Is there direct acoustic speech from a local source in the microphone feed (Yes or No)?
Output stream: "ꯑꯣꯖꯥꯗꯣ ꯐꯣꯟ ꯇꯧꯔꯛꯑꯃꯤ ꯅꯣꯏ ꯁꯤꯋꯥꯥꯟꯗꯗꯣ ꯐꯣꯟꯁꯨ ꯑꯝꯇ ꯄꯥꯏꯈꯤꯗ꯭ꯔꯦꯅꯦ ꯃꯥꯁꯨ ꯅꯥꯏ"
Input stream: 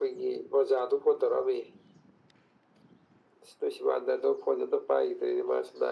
No